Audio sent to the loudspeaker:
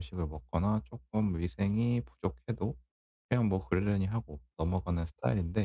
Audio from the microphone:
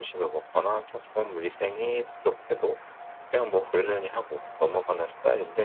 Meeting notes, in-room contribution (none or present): none